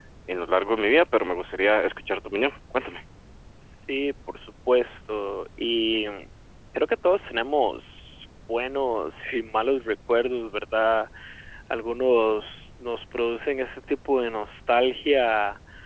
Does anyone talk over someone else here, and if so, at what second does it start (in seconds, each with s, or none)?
none